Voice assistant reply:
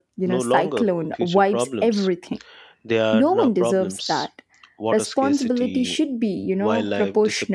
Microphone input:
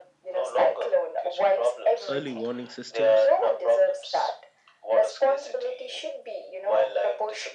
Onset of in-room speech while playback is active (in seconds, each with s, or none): 2.1 s